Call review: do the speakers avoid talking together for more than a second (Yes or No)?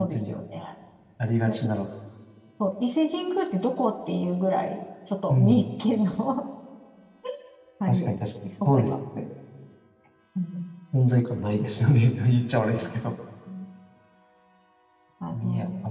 Yes